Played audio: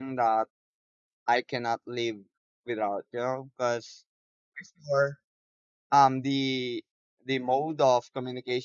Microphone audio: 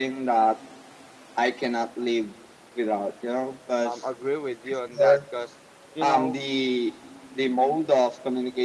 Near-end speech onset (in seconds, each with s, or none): 3.8 s